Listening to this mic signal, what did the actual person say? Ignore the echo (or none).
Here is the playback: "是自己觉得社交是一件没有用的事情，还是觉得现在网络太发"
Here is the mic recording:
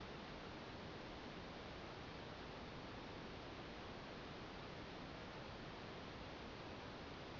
none